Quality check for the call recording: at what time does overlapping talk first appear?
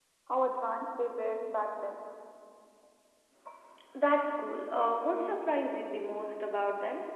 none

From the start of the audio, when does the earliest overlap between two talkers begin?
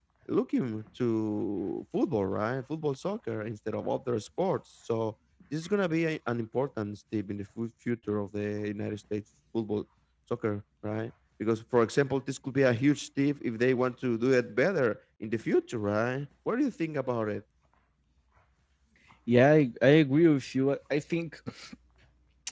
none

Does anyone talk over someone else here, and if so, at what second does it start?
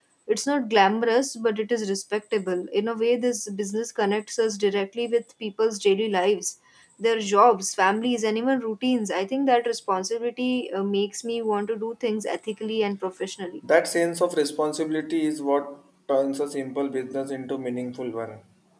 none

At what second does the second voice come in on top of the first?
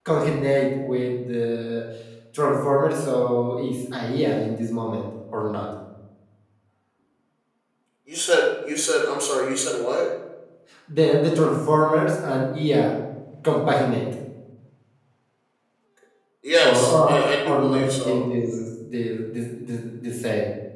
16.6 s

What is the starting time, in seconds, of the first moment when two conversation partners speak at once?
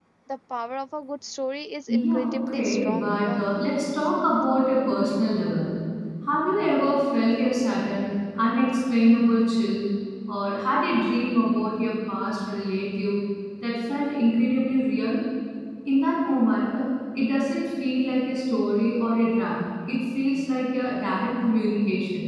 1.9 s

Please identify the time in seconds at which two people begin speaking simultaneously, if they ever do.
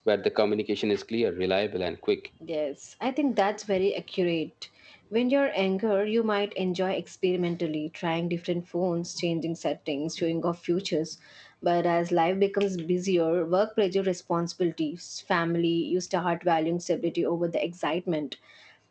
none

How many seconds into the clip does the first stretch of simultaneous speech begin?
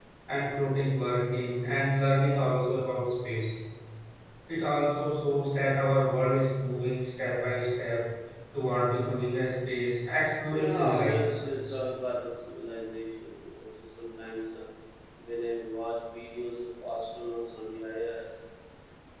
10.5 s

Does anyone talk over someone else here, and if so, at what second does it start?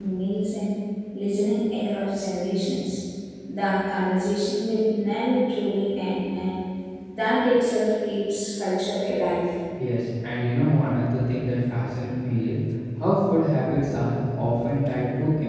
none

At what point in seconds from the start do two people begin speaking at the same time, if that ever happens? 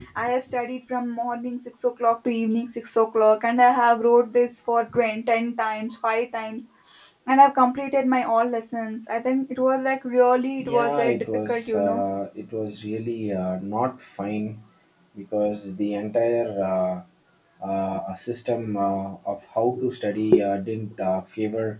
10.6 s

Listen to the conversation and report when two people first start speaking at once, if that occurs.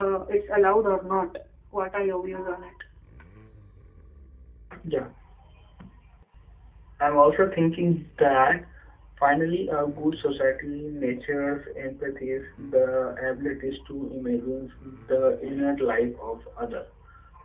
none

